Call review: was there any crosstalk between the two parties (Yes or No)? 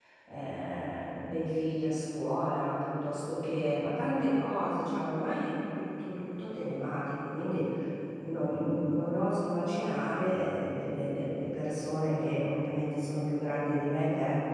No